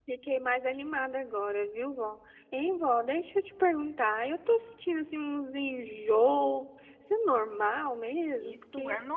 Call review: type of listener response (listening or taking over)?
taking over